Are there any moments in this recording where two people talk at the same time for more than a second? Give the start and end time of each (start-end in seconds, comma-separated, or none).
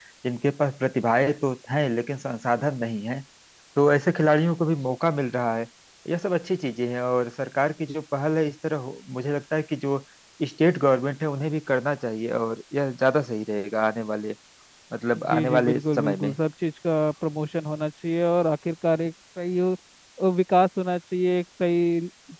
15.2-16.4